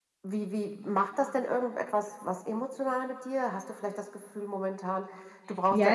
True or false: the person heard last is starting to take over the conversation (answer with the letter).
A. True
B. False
A